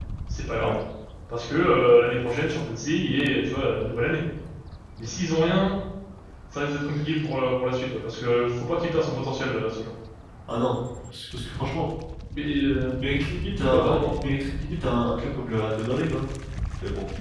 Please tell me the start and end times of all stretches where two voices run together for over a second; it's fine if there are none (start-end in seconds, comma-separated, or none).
none